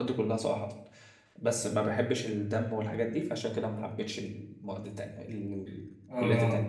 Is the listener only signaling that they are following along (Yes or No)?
No